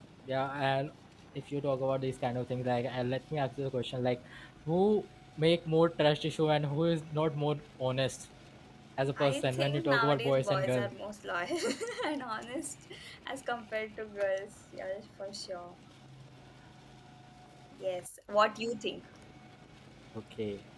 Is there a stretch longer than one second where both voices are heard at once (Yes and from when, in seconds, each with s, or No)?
Yes, from 9.2 s